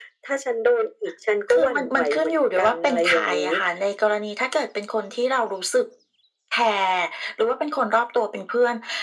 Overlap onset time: 1.5 s

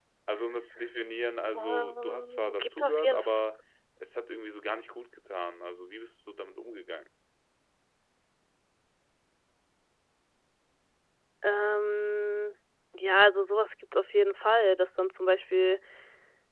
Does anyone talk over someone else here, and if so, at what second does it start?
1.6 s

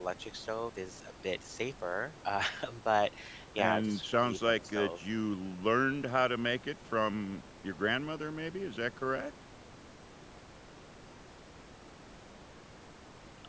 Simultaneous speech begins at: 3.6 s

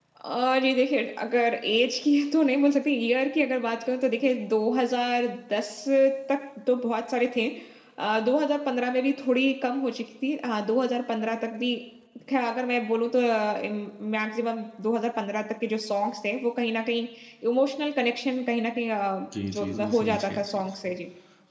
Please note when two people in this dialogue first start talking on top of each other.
19.3 s

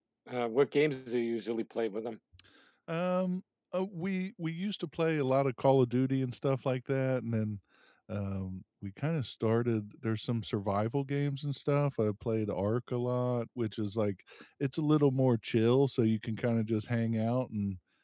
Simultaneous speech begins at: none

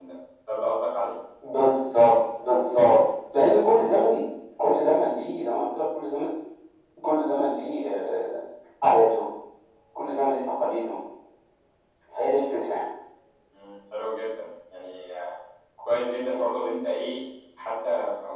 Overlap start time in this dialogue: none

